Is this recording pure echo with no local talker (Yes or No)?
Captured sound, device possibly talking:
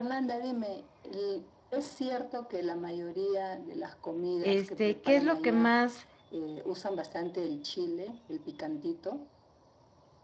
No